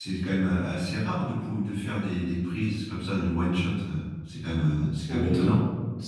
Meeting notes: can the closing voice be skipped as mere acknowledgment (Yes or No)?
No